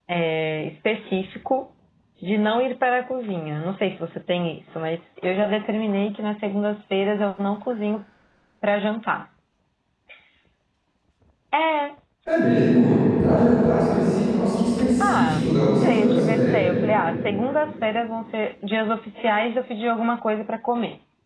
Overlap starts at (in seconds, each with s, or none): 15.0 s